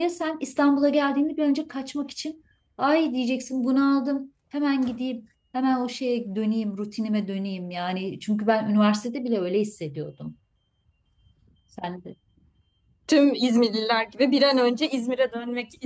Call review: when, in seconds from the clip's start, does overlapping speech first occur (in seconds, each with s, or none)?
none